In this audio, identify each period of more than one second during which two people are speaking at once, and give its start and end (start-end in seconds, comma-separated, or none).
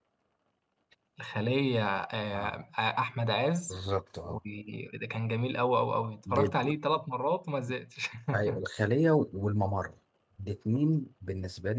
none